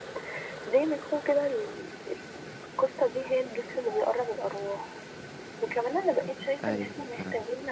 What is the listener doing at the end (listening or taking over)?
listening